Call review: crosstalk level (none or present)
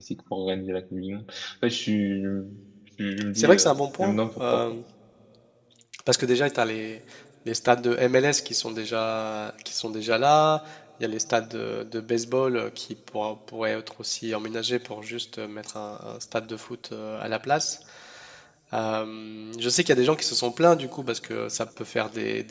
present